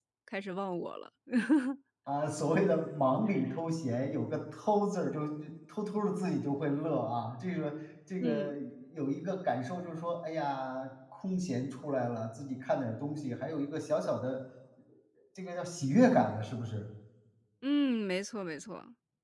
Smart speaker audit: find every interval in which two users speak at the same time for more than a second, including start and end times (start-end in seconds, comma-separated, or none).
none